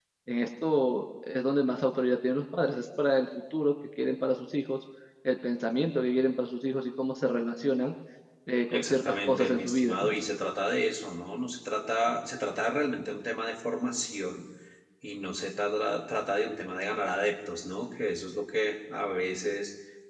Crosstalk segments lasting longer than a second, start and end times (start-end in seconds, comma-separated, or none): 8.7-10.0